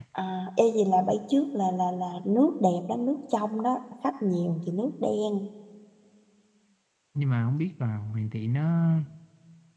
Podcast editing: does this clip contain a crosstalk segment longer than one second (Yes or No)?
No